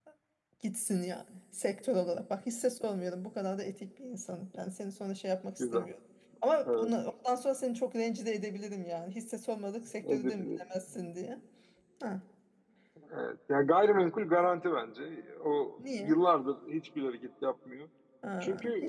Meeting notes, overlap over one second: none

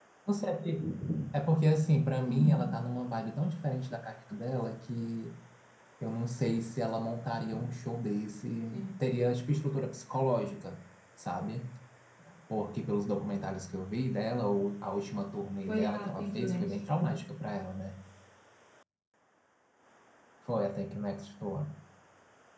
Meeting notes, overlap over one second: present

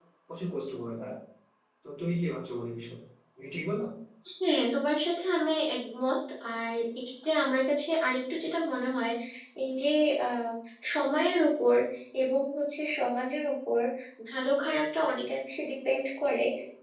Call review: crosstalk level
none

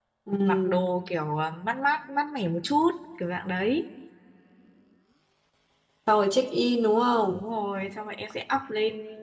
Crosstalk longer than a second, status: none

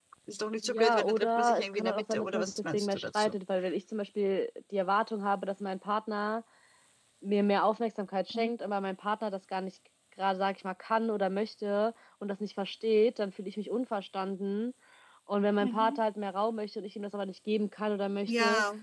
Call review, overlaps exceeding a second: present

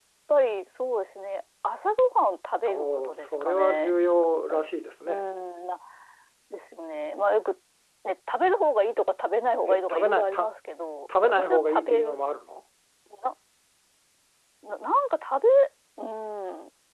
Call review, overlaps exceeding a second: present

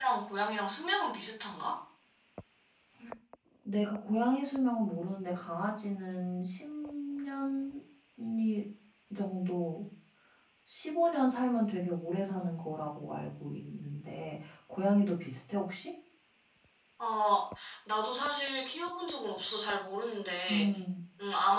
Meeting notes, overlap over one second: none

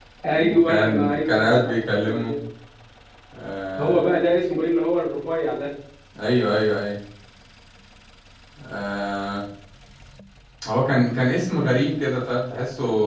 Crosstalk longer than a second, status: present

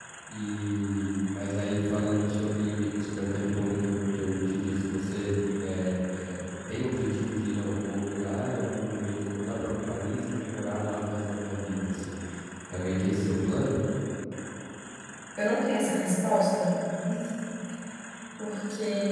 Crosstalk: none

